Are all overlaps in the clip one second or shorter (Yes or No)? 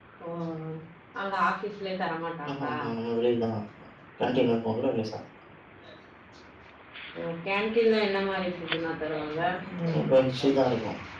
Yes